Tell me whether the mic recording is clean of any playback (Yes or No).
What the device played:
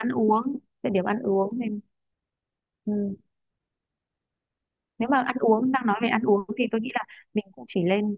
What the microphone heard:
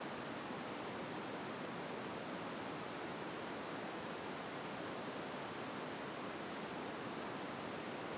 Yes